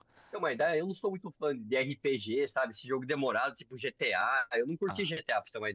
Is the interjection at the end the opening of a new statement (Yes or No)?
No